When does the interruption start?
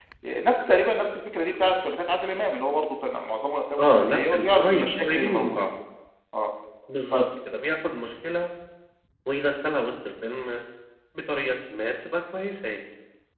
3.8 s

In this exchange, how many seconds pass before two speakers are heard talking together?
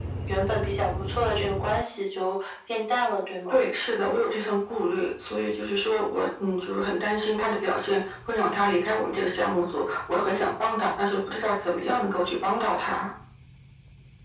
none

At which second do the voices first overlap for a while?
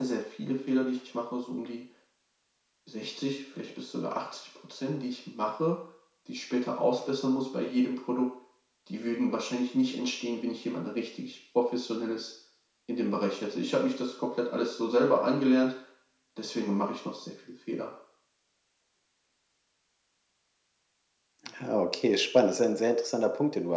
none

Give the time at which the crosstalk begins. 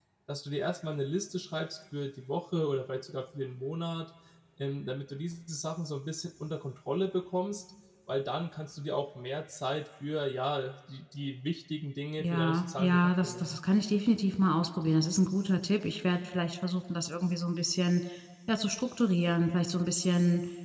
12.2 s

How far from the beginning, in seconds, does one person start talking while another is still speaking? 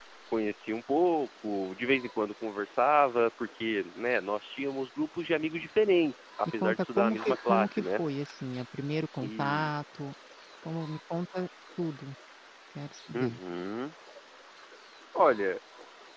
6.6 s

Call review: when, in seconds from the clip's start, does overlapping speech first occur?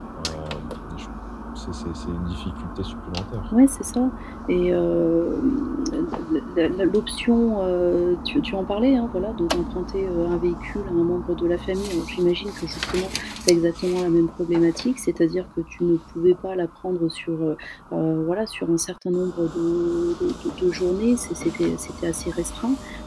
none

